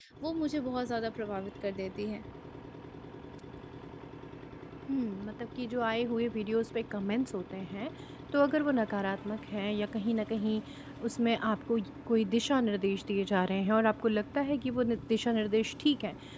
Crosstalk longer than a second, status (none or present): none